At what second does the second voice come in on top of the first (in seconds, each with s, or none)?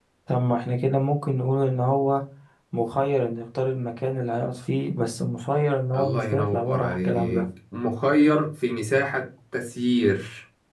5.9 s